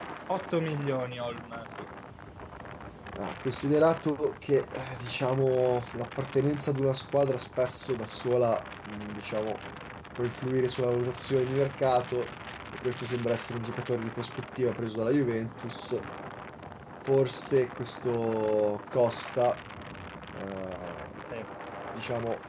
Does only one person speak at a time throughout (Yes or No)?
Yes